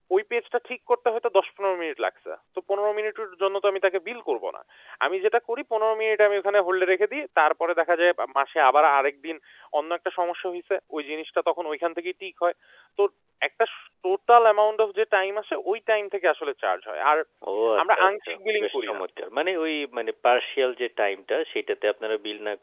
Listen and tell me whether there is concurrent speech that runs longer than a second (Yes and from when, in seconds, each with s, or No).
Yes, from 17.8 s